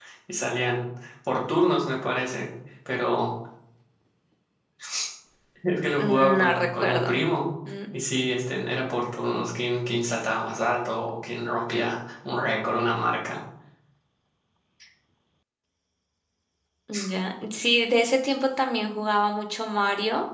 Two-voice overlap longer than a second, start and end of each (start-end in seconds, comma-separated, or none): 6.0-7.2